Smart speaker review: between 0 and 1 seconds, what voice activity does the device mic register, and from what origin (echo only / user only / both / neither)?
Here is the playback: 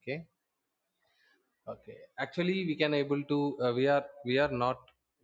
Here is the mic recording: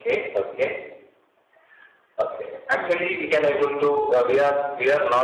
echo only